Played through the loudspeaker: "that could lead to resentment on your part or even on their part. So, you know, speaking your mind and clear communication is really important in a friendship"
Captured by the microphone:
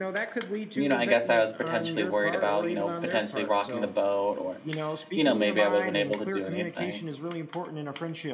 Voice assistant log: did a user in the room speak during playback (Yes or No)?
Yes